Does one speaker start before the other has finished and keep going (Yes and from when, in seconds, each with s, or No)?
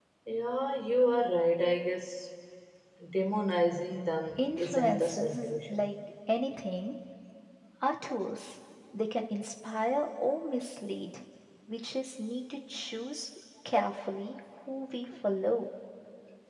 Yes, from 4.4 s